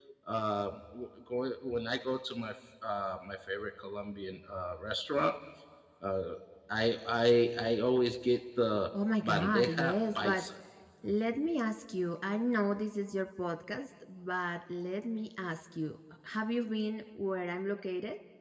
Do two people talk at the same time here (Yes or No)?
Yes